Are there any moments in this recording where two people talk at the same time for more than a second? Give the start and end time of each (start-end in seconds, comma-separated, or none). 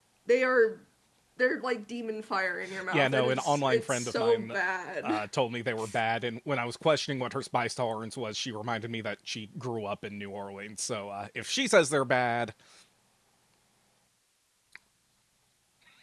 2.9-4.5